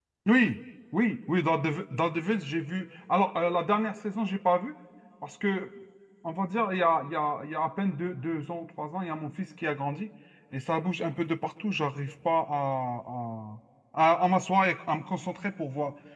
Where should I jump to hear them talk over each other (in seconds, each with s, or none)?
none